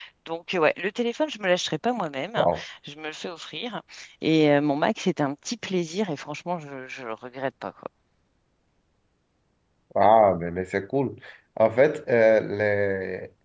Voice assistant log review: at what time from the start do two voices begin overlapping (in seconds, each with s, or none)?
none